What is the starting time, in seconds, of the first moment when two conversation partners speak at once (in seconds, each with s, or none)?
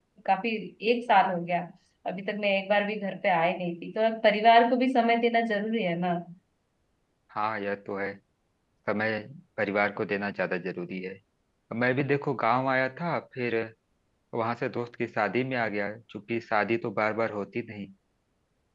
none